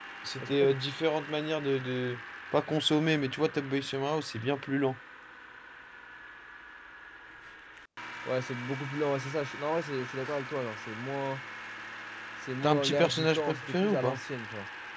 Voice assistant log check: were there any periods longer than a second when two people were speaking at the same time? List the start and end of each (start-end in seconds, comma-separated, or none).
12.6-14.2